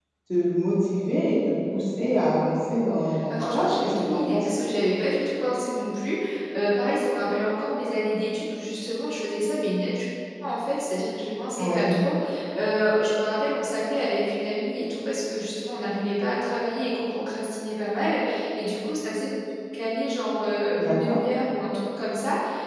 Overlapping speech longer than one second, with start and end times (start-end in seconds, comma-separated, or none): 3.3-4.5